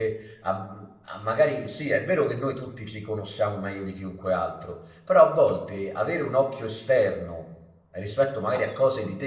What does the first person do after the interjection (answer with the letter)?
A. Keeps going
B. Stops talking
A